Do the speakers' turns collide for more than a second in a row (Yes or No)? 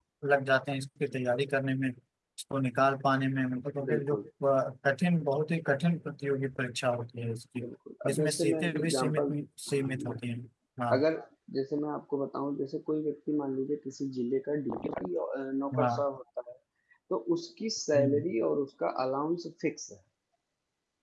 Yes